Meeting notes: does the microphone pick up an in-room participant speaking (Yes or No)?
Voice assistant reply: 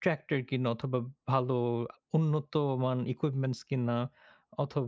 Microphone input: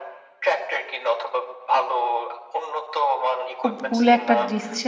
Yes